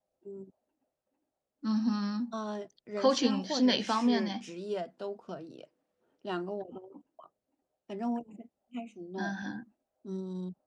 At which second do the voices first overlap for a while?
3.0 s

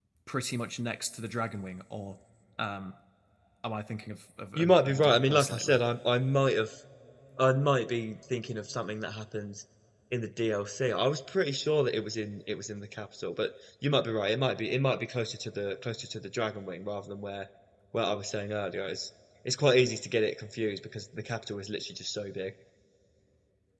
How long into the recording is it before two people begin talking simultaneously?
4.5 s

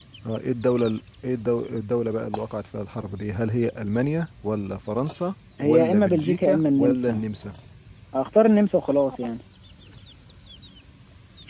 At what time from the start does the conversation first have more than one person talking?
5.6 s

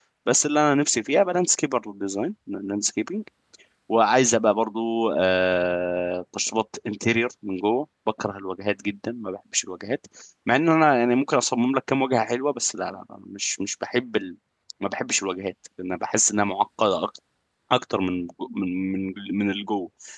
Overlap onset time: none

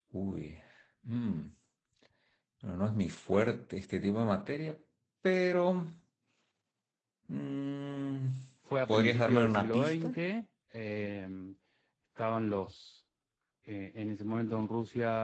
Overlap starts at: 8.9 s

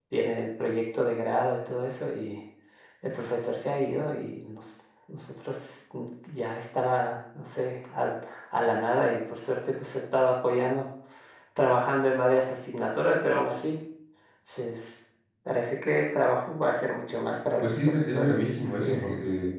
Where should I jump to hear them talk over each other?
17.6 s

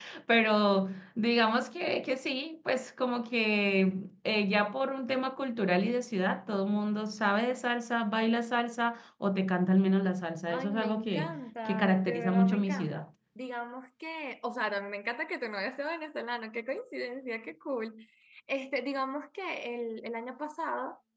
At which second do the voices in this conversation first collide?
10.5 s

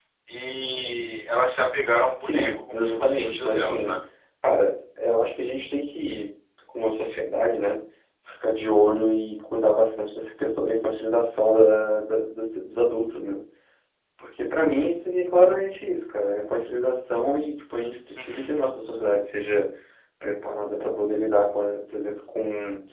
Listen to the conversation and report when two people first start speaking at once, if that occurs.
2.2 s

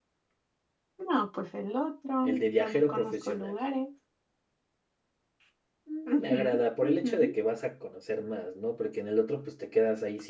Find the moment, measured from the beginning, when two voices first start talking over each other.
2.2 s

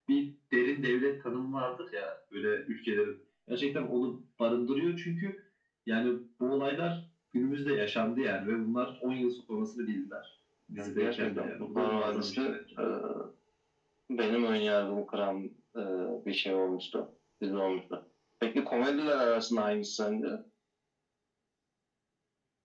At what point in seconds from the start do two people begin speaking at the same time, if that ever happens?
10.8 s

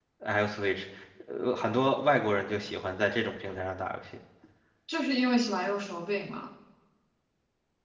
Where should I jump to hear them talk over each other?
none

